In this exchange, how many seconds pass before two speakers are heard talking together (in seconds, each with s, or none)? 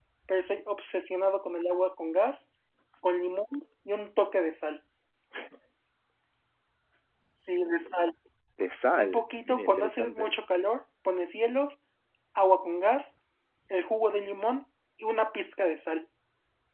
9.0 s